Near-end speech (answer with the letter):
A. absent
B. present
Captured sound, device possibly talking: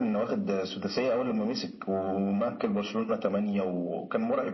A